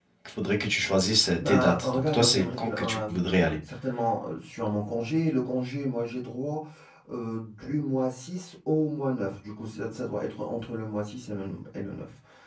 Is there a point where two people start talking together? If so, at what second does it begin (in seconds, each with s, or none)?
1.2 s